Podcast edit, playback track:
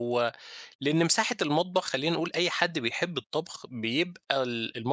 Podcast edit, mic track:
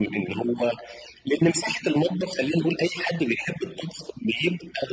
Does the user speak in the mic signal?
No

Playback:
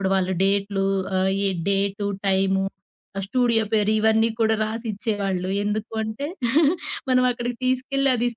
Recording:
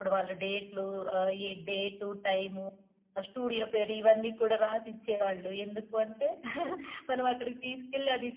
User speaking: No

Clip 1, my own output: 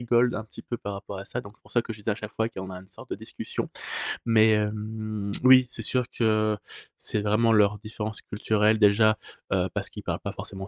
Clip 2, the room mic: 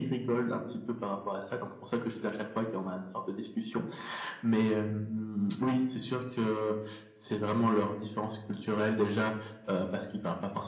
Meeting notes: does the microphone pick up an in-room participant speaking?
No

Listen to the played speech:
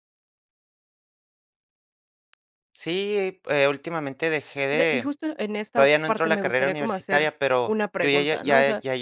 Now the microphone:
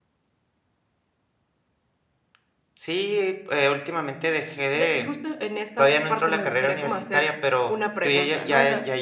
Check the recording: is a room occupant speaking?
No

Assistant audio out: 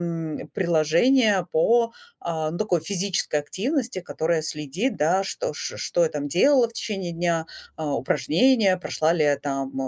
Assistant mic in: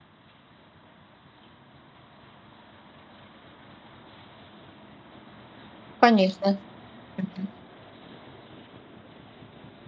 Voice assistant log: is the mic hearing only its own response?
No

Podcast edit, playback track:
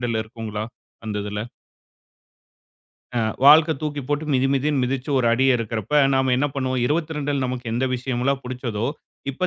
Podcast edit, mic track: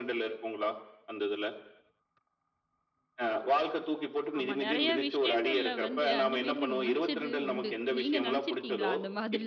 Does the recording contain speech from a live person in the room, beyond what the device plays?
Yes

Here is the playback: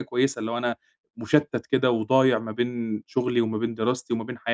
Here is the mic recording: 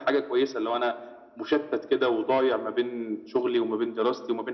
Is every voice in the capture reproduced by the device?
Yes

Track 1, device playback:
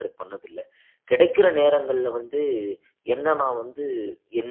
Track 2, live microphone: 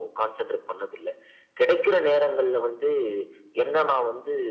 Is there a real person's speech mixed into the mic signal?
No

